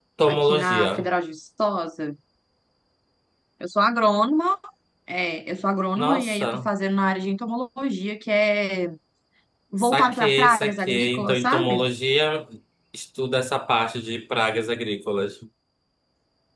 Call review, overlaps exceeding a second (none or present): present